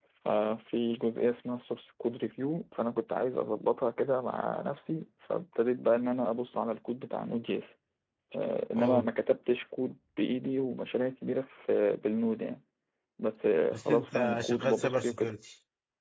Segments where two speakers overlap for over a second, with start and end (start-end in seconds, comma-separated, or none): 13.7-15.3